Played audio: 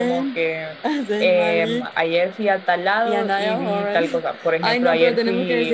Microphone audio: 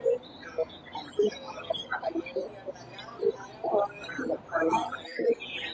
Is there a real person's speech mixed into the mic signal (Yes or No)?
No